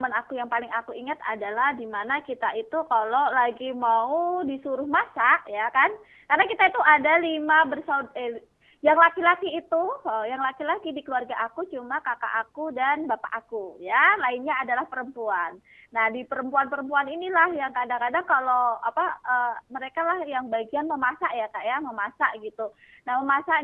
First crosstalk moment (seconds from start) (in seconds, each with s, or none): none